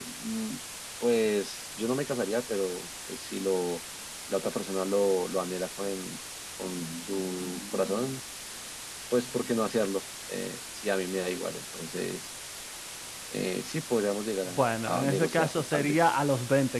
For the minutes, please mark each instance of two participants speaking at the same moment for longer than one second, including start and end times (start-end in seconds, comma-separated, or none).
14.5-16.1